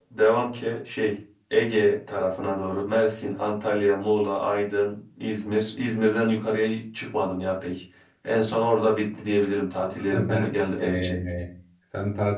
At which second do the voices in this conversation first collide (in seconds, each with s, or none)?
9.8 s